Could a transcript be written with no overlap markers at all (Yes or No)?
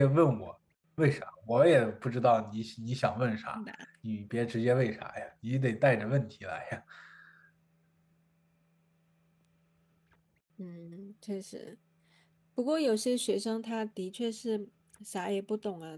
Yes